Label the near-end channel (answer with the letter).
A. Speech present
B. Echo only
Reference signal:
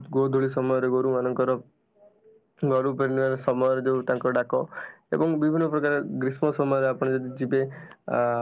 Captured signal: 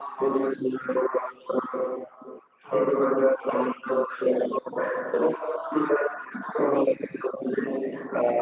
B